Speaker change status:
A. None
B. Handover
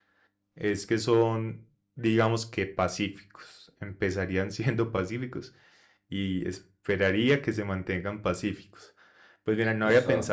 A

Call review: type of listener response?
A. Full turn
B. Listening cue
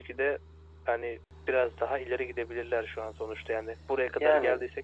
B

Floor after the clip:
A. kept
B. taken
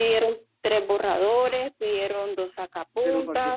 B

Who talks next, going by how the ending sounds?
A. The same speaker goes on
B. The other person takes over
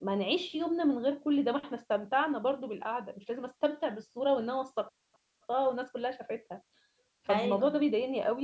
A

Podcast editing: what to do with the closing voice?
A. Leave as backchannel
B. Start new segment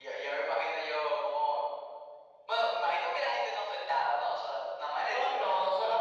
B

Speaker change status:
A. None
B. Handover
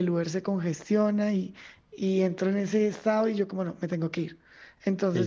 B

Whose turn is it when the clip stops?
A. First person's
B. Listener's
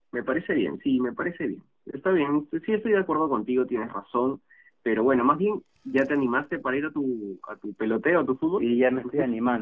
B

